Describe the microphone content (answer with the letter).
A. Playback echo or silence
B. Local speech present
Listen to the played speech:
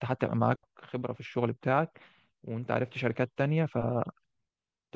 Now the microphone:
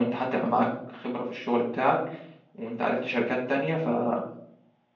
A